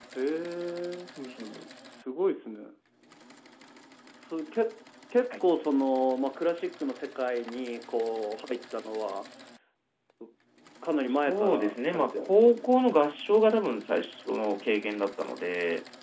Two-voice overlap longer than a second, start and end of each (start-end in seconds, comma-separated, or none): 11.3-12.7